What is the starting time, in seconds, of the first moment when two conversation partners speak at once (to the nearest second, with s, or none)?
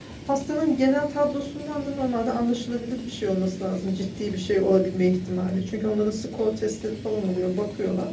none